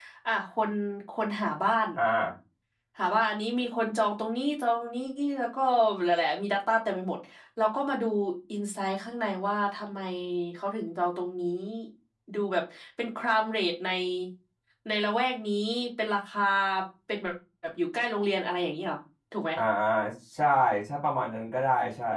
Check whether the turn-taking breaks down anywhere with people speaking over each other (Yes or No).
No